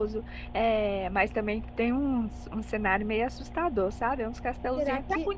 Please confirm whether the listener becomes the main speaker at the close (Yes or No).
No